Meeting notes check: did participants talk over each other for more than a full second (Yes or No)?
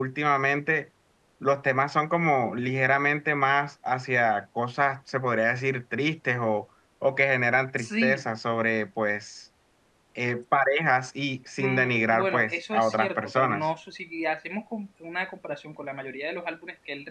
Yes